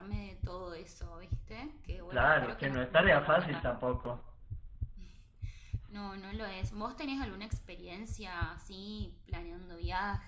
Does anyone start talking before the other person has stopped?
Yes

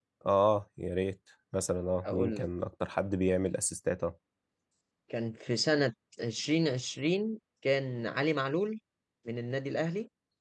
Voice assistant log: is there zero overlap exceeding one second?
Yes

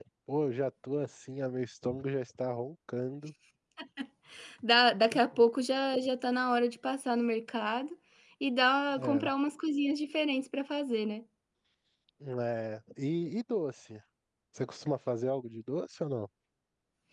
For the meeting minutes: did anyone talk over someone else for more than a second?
No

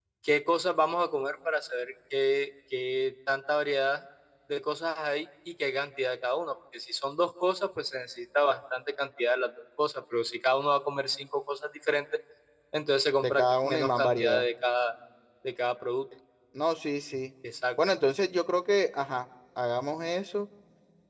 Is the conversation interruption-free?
No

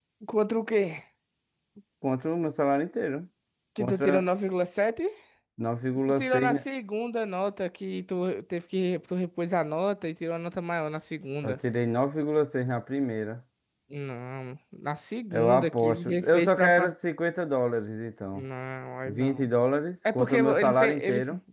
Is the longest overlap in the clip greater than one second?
Yes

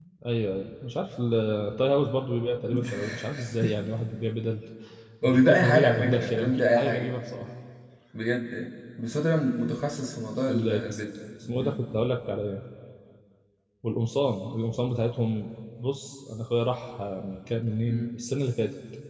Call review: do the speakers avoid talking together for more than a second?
No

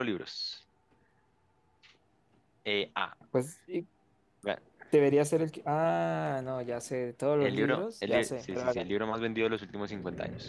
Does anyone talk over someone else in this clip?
Yes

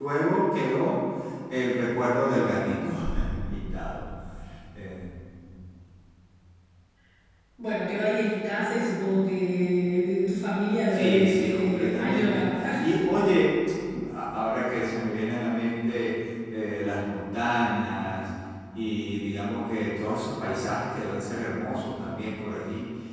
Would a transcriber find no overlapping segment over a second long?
No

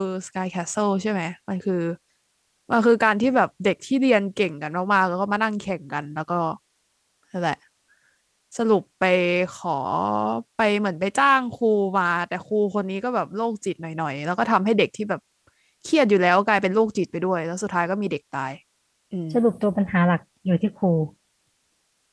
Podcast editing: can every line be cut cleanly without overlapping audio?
Yes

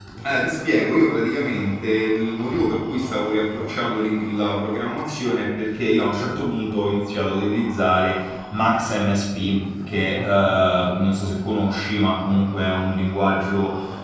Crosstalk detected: No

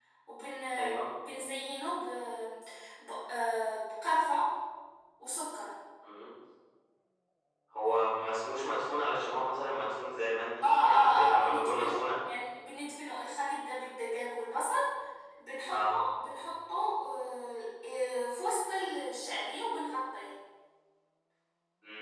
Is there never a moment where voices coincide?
No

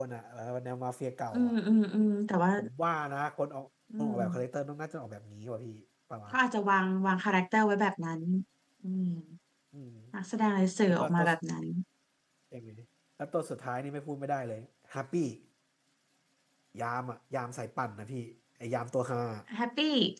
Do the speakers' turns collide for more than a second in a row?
No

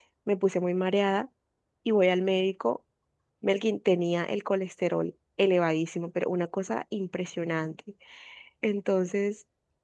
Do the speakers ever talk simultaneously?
No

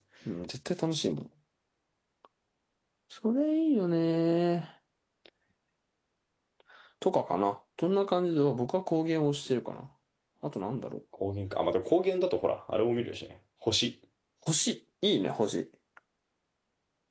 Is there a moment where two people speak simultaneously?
No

